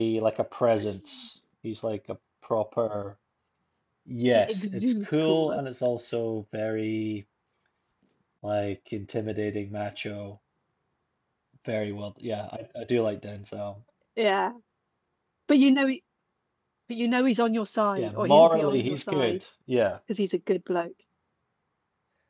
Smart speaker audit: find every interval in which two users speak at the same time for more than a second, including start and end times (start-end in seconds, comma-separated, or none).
4.3-5.6, 18.0-19.4